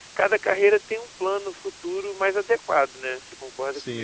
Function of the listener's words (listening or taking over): taking over